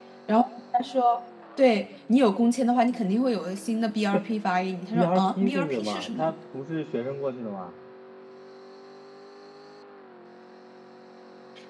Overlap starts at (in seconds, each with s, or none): 4.9 s